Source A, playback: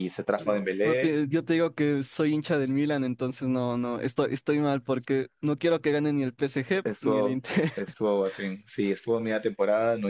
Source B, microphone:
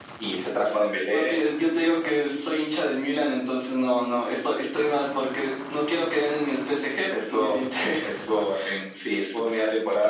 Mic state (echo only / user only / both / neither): echo only